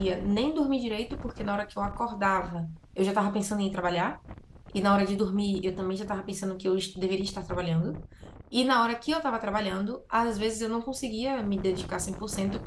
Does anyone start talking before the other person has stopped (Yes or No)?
No